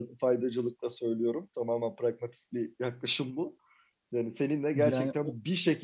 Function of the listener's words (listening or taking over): listening